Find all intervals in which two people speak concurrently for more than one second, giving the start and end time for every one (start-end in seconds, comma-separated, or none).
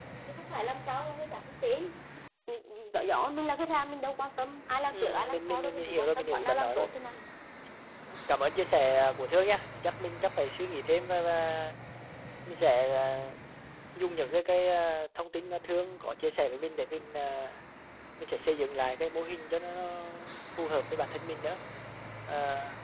4.9-7.1